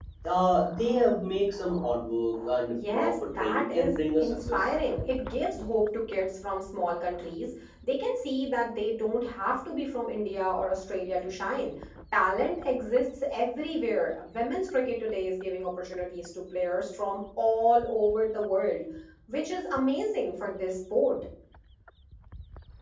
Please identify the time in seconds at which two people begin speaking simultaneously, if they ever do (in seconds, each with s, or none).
2.7 s